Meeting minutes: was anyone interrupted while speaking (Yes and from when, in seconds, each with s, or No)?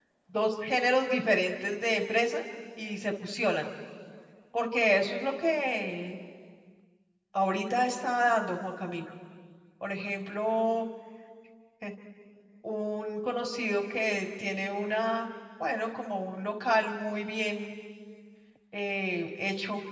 No